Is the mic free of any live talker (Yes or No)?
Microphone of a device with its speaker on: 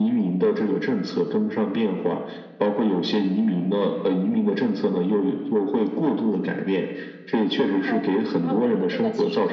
No